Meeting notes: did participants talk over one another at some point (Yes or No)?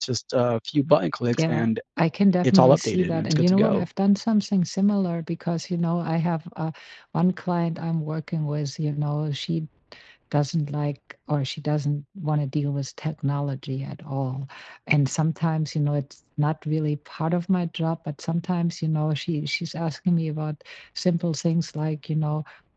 Yes